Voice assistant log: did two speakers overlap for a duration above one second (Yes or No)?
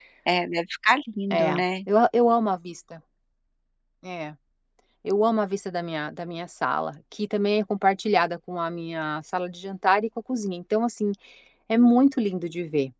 No